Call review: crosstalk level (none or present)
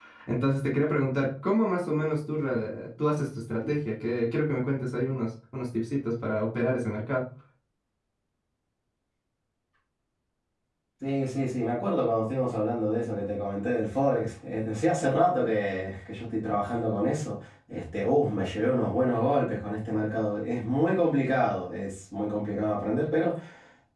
none